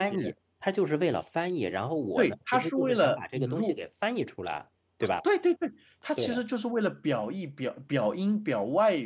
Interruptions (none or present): present